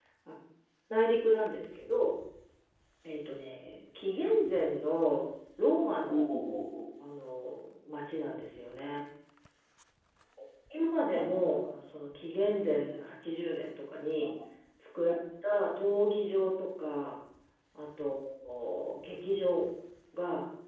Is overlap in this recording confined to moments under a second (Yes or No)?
Yes